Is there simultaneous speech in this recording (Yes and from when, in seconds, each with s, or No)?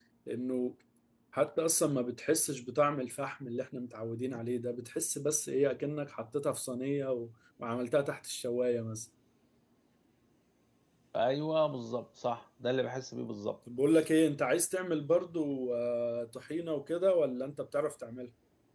No